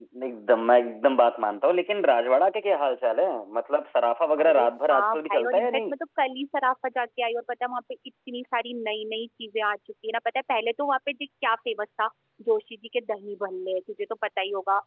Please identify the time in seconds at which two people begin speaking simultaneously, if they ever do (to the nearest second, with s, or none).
4 s